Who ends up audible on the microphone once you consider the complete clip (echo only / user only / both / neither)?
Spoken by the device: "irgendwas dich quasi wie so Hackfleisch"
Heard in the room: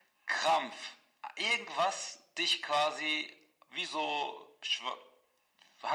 echo only